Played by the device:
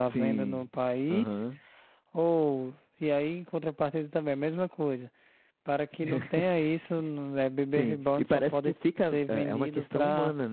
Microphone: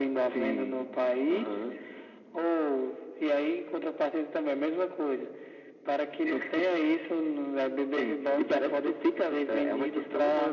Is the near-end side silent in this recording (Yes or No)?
Yes